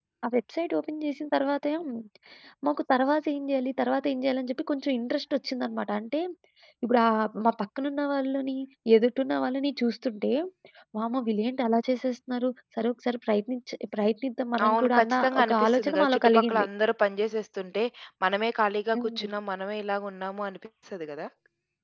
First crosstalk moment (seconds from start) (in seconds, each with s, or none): 14.7 s